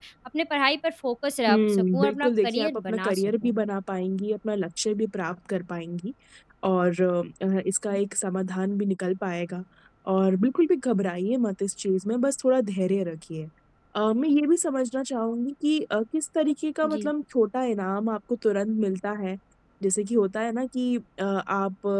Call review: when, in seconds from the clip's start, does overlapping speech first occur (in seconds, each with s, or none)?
1.5 s